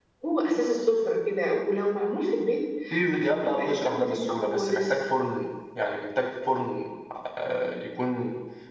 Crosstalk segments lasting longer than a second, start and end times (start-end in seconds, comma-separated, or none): 3.1-5.0